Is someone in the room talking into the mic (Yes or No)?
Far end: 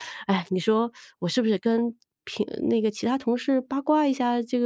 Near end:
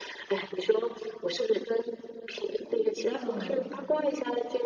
Yes